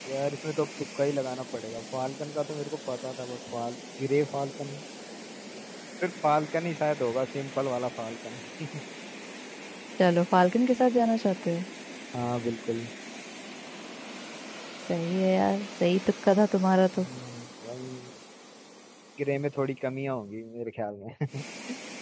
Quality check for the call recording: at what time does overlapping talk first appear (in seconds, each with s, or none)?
none